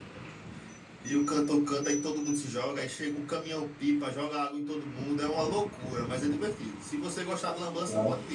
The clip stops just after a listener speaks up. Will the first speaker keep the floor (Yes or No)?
Yes